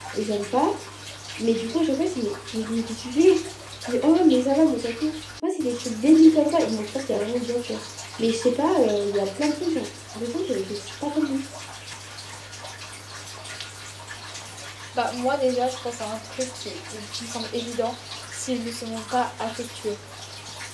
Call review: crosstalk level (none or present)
none